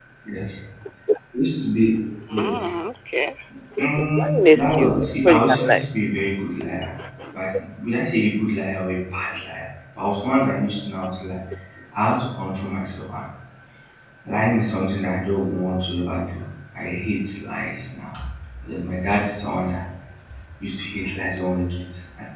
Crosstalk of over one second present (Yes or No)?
Yes